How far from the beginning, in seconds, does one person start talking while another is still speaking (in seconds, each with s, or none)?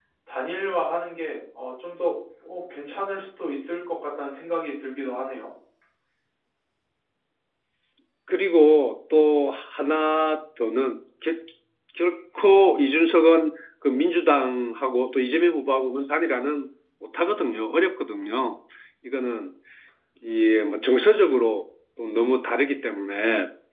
none